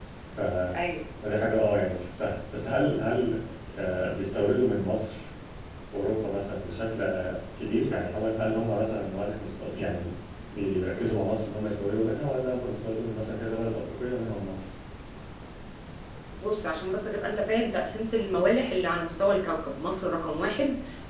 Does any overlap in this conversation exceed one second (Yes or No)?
No